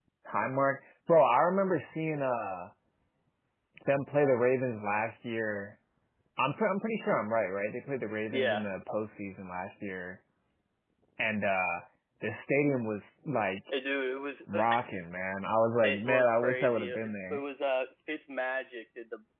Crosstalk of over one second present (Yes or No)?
Yes